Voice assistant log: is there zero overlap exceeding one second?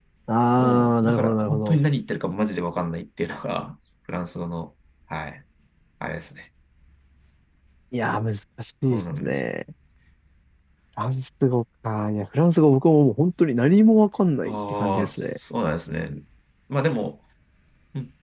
No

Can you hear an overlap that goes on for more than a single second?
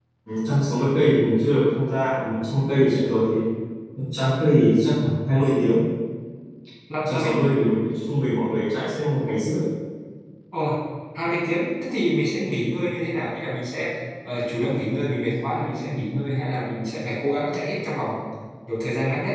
No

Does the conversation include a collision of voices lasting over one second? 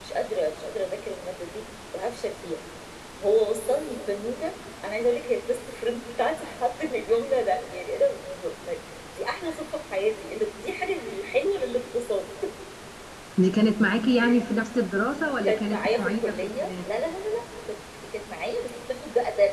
Yes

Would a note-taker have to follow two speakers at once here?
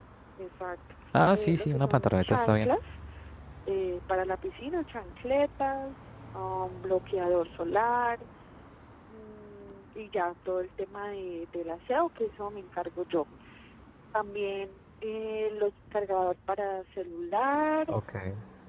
Yes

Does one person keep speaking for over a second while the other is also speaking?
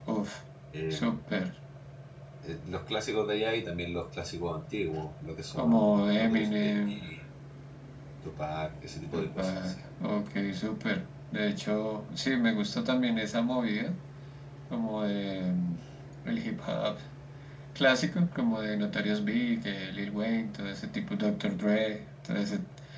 Yes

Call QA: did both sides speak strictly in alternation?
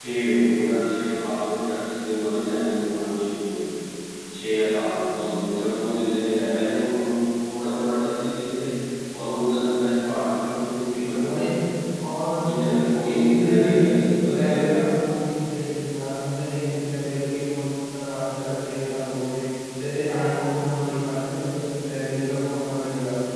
No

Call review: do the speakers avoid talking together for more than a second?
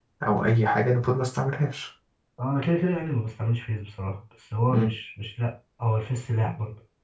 Yes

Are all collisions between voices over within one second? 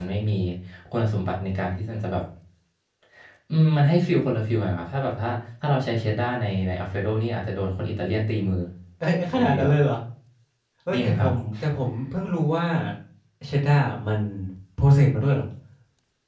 Yes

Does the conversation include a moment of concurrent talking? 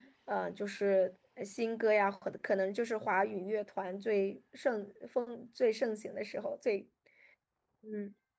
No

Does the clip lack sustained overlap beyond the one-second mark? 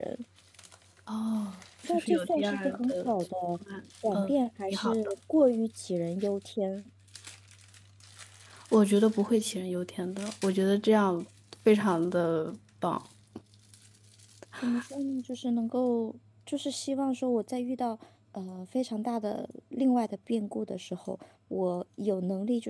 No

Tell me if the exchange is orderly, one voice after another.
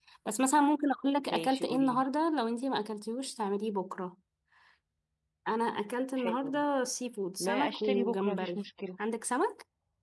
No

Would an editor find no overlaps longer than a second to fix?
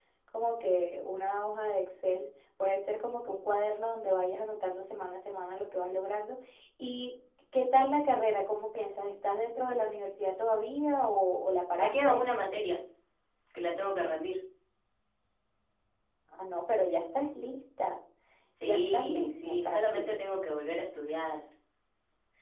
No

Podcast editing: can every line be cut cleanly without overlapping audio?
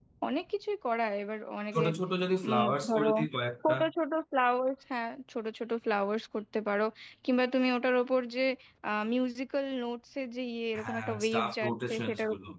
No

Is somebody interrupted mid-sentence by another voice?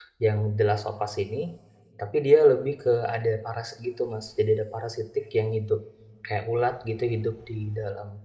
No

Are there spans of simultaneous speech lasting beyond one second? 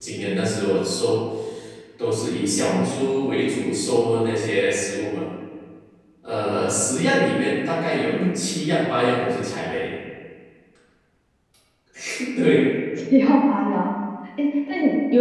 No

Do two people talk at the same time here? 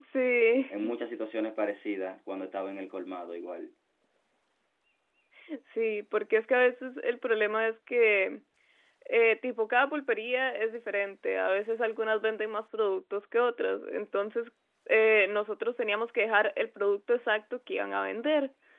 No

